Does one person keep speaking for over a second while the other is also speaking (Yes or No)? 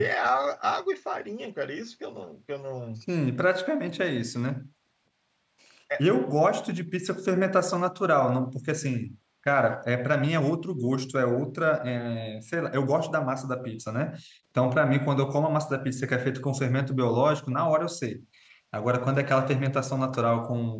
No